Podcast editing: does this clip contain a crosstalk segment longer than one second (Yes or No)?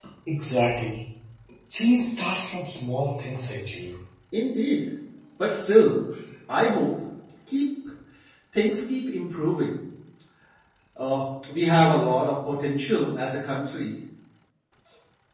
No